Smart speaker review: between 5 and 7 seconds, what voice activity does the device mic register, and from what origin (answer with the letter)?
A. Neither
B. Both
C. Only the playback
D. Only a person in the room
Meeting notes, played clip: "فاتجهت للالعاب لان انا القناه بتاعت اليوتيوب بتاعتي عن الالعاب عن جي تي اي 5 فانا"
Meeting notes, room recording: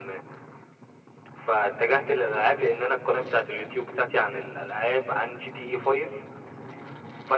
C